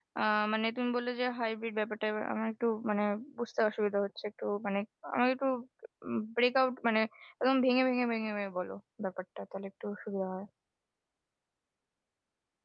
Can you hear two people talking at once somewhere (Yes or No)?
No